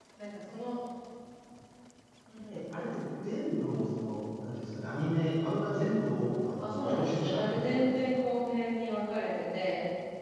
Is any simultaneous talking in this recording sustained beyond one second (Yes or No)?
Yes